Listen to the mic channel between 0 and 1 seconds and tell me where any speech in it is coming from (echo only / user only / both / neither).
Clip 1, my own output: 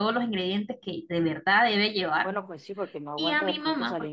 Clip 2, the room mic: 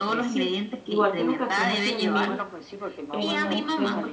both